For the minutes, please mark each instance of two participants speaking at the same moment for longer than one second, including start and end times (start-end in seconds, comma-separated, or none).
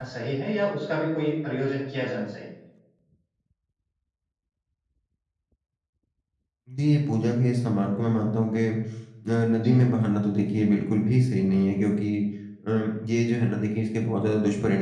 none